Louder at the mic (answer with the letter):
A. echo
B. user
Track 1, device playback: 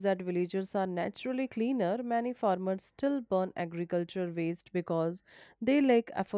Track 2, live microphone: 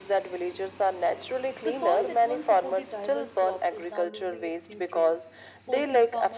A